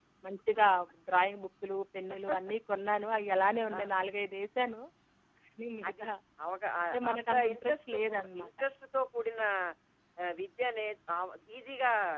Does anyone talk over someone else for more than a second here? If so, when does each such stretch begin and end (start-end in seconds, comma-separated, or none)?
6.9-8.5